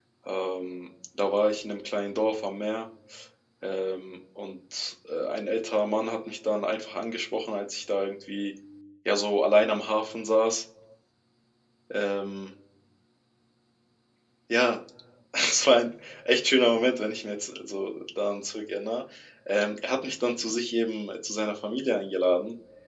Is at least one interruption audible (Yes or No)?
No